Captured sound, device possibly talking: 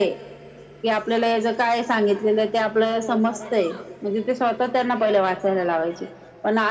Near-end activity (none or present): present